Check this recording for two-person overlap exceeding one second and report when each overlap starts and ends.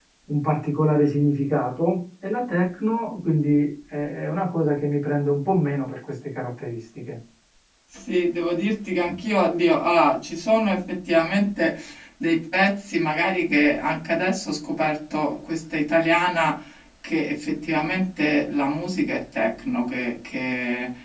none

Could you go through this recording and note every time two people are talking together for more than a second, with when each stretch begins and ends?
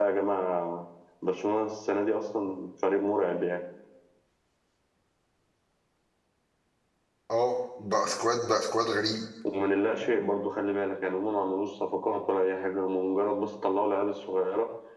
none

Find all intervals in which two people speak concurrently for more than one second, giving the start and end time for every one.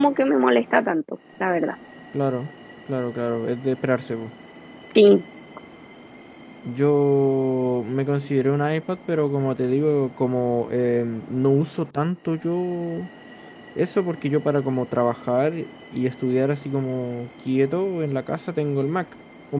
none

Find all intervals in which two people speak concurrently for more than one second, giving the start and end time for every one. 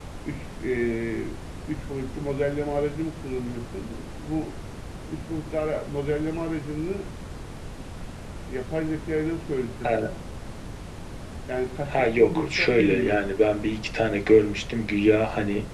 11.8-13.2

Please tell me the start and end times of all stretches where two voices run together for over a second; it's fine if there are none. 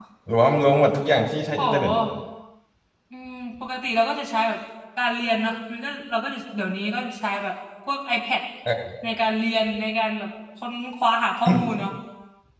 none

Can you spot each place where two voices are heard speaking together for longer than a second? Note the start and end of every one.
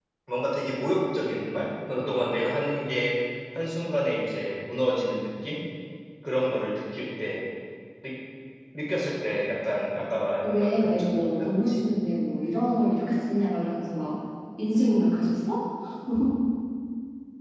10.4-11.8

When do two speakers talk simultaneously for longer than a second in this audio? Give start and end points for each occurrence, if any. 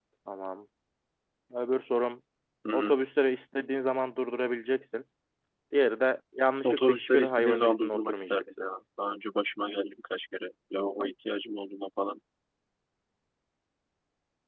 6.6-8.4

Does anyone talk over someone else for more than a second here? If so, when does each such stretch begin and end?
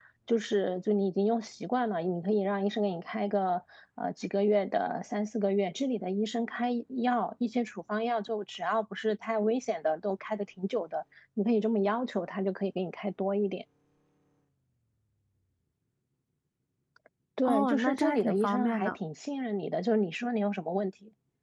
17.4-18.9

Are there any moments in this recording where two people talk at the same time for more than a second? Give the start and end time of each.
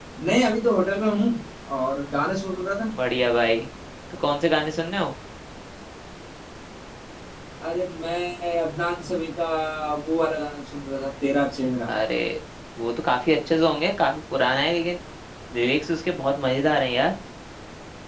none

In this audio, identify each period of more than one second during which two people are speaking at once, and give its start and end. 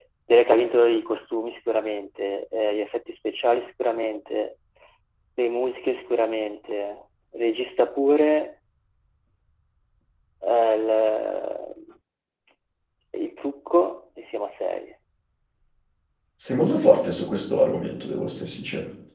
none

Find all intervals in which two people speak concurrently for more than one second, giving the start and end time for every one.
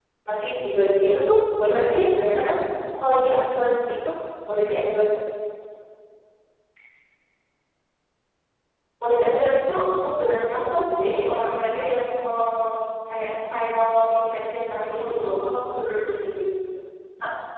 1.1-2.4

